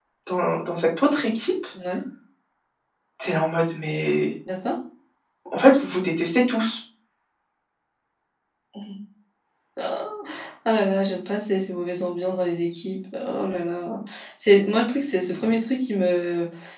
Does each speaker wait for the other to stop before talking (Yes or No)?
Yes